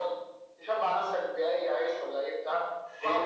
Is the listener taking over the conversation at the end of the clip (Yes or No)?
Yes